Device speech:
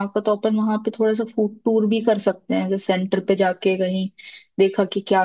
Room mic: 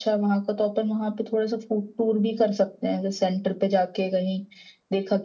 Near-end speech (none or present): none